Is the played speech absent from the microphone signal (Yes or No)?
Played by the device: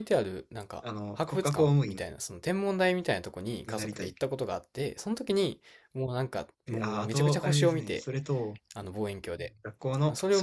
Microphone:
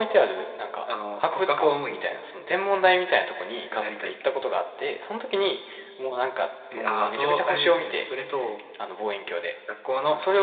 No